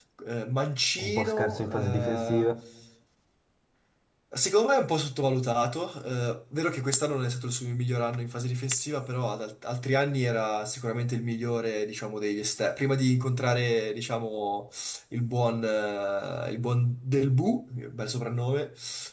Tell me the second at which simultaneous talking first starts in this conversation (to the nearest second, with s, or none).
1 s